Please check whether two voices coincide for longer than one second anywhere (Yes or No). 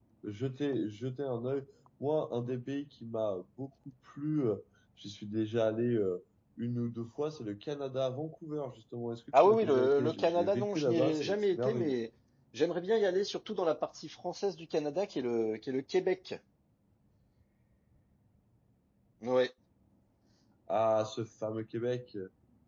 Yes